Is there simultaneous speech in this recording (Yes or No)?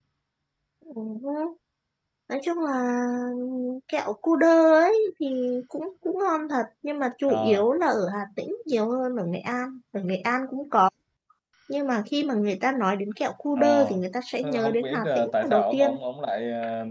Yes